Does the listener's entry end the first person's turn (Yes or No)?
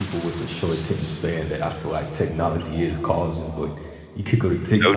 No